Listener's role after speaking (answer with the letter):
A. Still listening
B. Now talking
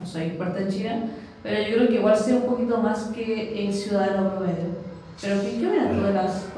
A